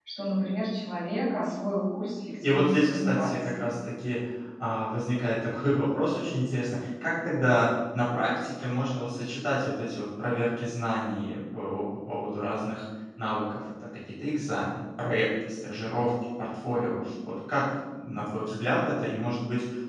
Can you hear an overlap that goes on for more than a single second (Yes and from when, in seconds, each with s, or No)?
Yes, from 2.4 s